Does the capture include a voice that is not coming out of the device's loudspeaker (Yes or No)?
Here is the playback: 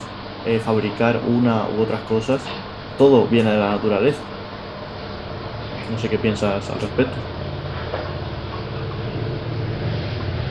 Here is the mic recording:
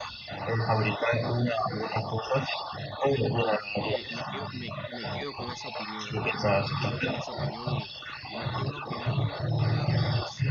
Yes